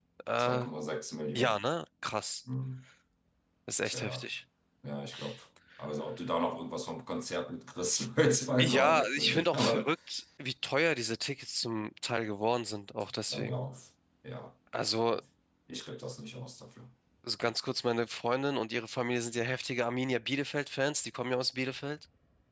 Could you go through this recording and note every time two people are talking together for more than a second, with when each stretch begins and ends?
8.6-9.9

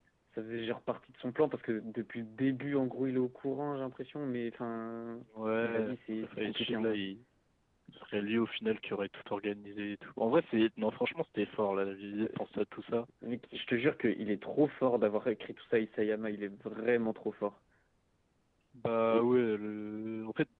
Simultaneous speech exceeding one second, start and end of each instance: 5.6-7.0

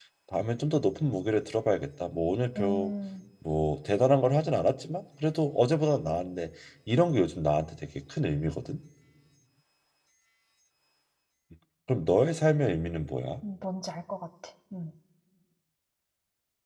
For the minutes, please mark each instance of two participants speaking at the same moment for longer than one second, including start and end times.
none

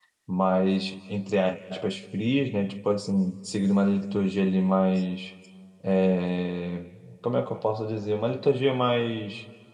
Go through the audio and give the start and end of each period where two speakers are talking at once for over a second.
none

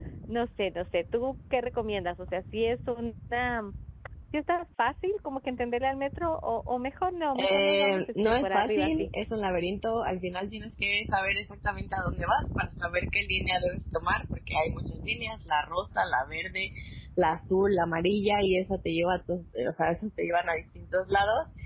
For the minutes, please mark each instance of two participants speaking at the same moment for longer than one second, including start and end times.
7.5-9.1

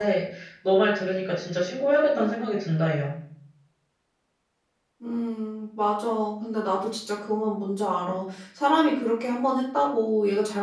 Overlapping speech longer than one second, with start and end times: none

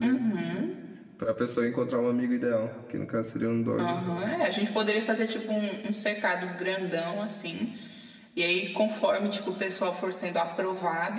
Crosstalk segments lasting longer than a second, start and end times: none

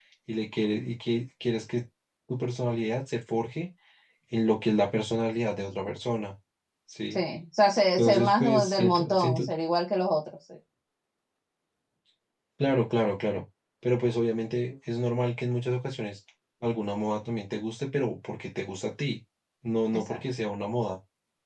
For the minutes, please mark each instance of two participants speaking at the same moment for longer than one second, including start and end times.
8.0-9.4

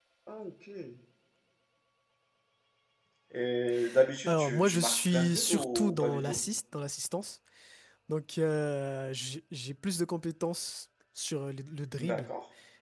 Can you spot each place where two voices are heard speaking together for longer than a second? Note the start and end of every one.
4.3-6.4

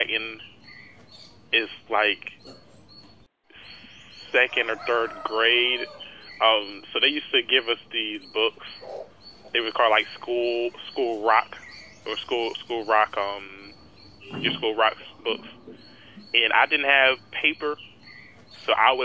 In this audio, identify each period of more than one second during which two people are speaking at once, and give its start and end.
none

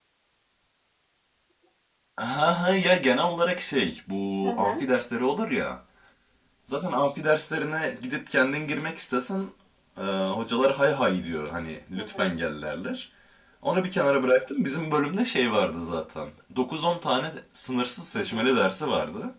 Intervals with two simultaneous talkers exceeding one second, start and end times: none

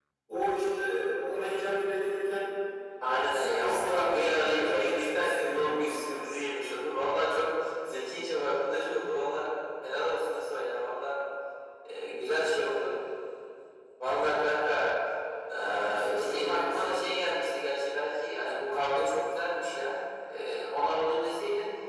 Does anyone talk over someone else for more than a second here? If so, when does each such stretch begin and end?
3.3-6.2, 15.7-17.1

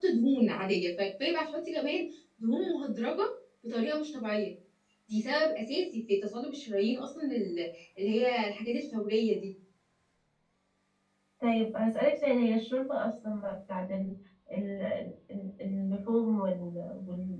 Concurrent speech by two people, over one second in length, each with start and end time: none

